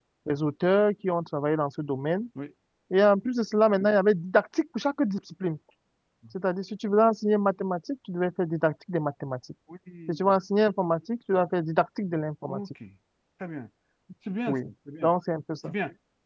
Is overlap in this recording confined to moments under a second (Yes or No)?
Yes